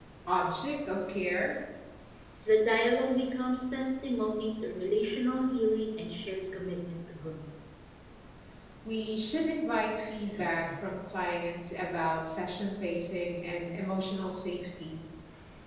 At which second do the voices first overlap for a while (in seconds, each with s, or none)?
none